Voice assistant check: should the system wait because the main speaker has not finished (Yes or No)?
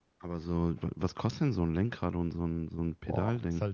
No